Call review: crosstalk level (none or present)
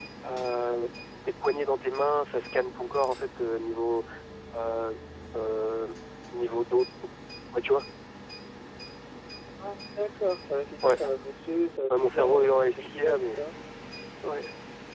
present